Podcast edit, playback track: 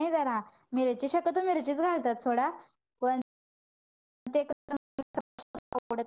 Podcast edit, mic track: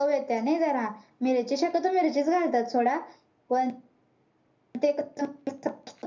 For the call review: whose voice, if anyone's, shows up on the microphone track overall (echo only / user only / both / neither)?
echo only